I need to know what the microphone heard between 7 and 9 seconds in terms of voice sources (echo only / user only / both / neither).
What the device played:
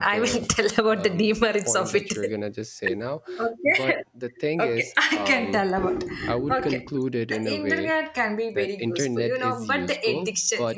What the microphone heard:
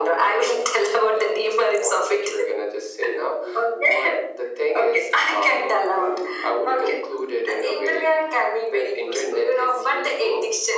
echo only